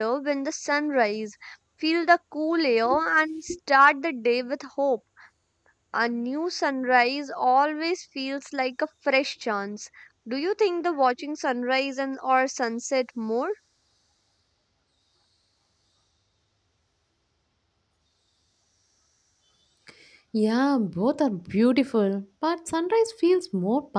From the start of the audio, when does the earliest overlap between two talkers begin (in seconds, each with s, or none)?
none